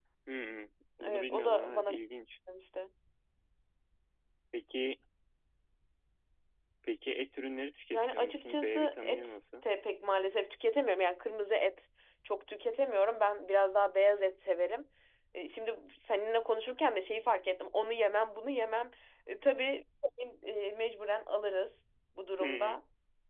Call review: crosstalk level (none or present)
present